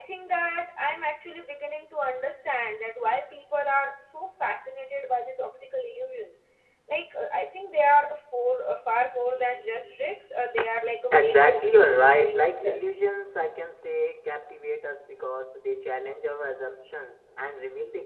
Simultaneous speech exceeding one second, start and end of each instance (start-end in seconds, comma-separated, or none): 11.1-12.8